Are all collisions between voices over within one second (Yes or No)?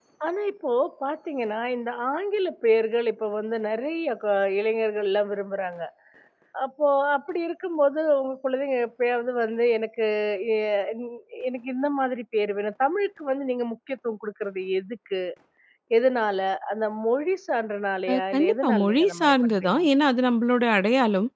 No